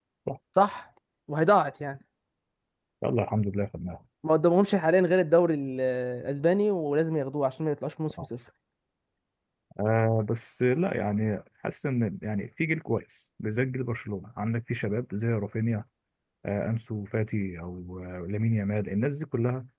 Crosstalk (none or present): none